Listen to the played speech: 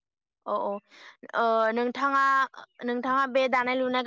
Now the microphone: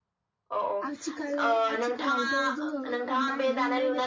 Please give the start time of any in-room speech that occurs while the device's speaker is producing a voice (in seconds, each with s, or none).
0.8 s